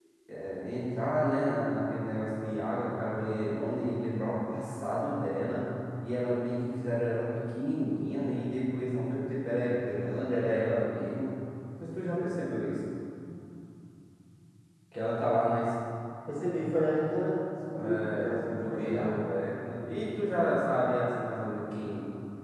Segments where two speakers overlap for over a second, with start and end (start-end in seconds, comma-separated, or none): 17.7-19.1